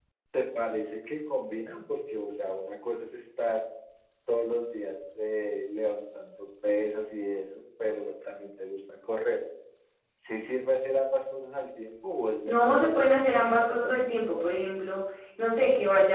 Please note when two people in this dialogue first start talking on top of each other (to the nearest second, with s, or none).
12 s